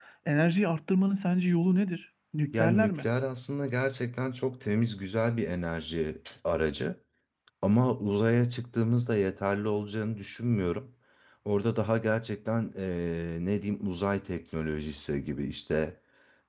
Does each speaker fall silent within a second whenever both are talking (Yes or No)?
Yes